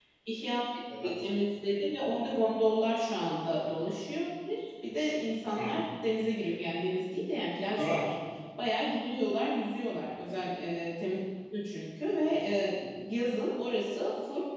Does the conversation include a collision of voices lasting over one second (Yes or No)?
No